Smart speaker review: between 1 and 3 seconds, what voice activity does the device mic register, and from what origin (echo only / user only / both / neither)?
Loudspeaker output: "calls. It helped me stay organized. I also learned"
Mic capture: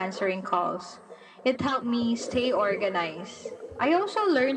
echo only